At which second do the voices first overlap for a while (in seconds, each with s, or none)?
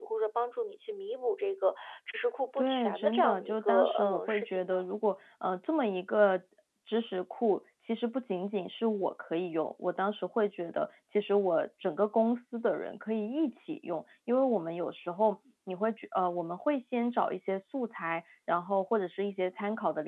2.6 s